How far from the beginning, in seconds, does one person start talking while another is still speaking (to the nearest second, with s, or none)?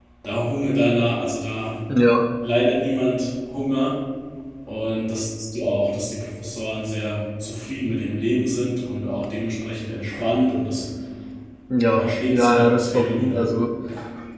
12 s